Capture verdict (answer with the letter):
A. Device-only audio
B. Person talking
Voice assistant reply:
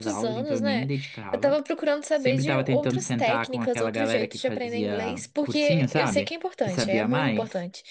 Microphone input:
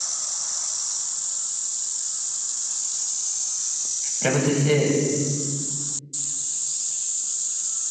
B